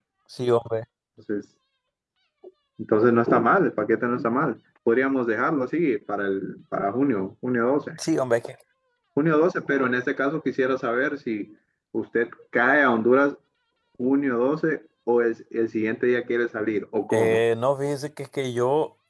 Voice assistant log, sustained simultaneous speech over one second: none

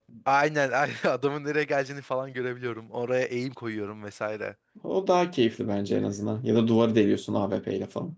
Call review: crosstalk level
none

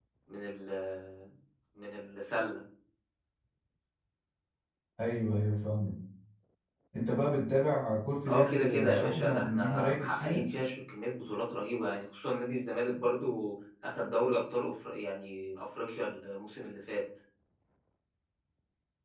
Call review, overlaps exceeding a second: present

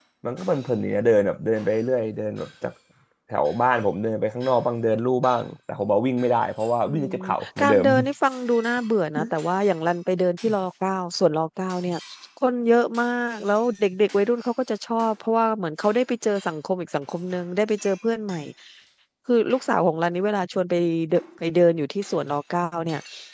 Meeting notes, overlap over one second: none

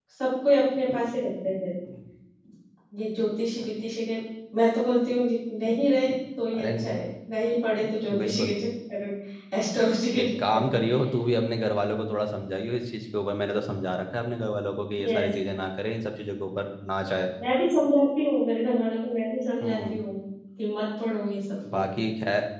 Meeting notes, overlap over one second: none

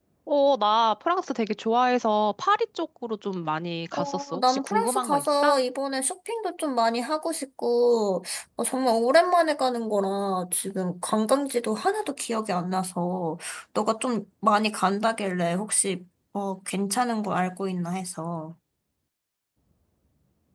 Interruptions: present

